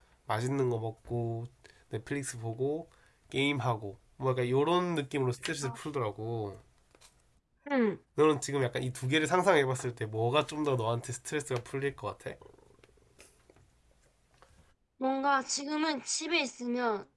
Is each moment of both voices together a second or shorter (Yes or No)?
Yes